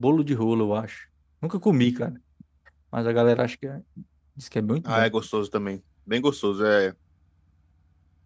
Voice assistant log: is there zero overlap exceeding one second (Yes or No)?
Yes